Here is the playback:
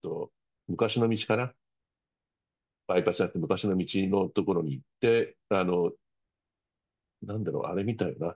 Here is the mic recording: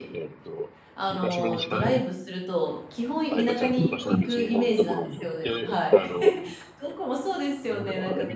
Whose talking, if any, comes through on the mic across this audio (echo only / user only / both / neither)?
both